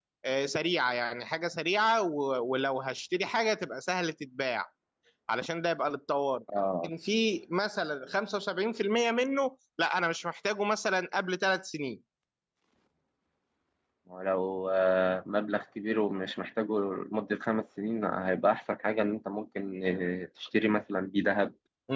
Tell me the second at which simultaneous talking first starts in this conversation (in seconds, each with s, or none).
none